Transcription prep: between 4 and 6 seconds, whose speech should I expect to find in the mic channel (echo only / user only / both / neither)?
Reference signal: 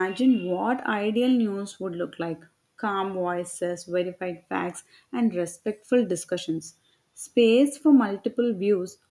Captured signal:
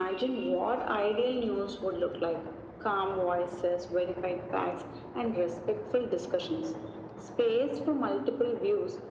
echo only